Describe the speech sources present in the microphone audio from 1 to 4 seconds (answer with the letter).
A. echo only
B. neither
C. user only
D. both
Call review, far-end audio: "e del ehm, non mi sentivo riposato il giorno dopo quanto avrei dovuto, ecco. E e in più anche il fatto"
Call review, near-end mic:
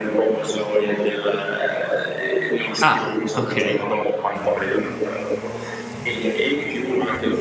D